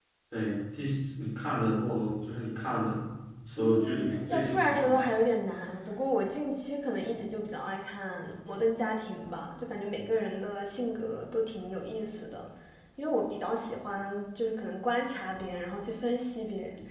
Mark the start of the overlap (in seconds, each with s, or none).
3.6 s